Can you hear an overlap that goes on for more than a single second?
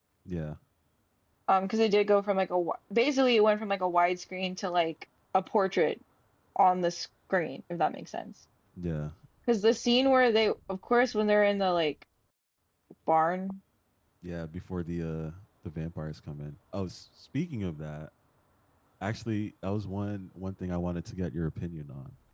No

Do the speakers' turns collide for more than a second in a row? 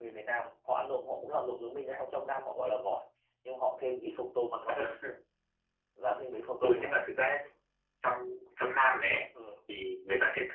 No

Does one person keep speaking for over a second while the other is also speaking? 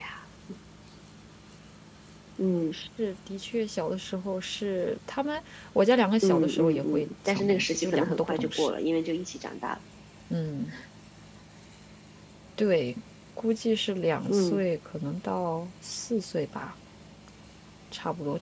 Yes, from 6.2 s

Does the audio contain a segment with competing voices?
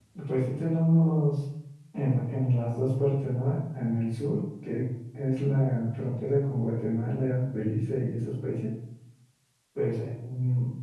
No

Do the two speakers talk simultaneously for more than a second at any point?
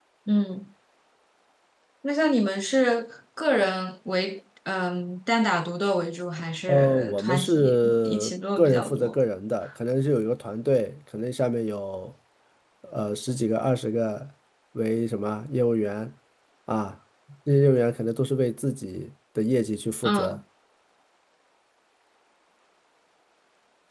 Yes, from 6.7 s

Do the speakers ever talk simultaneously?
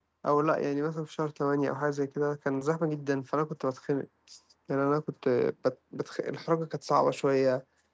No

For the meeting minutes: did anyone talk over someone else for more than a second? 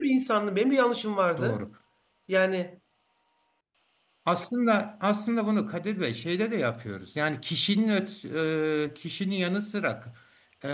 No

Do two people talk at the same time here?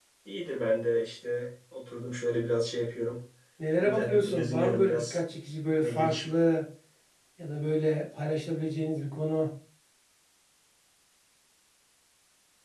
Yes, from 3.8 s

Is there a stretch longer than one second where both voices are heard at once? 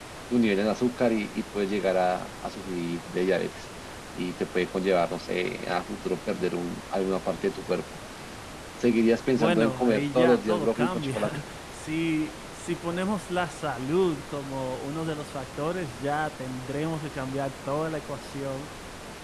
Yes, from 9.3 s

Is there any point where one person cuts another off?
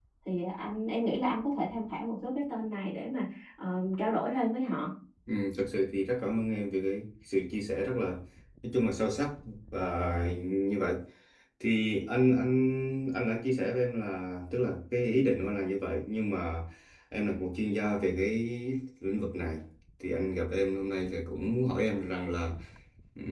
No

